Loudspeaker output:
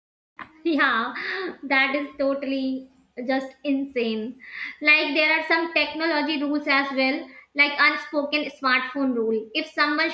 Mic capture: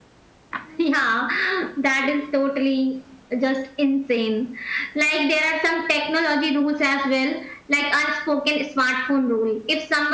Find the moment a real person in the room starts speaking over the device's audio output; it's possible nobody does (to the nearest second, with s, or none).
none